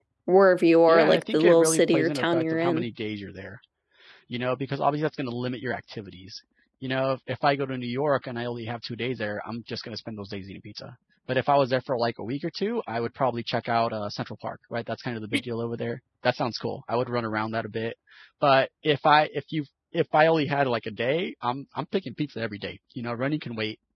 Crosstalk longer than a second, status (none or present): present